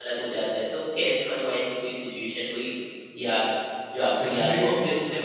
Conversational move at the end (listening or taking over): listening